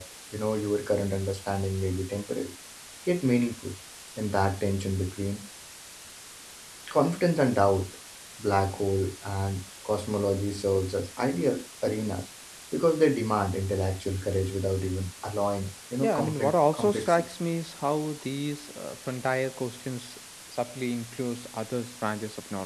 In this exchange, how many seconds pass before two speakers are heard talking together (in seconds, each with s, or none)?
16.0 s